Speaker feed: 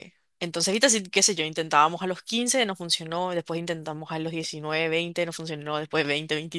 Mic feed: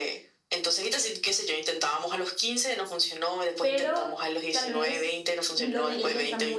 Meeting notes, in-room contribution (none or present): present